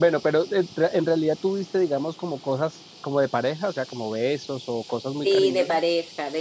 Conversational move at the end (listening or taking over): taking over